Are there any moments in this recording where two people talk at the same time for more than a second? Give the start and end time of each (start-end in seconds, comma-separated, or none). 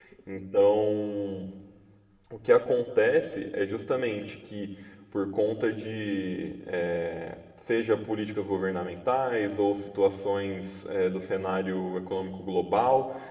none